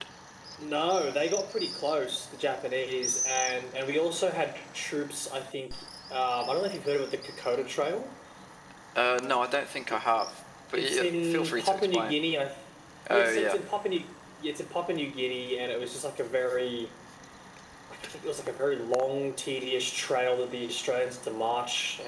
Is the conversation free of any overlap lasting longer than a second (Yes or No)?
No